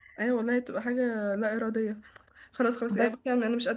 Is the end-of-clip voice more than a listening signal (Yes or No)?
No